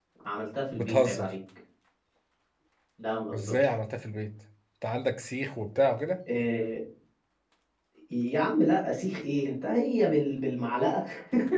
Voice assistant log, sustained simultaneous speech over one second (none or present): none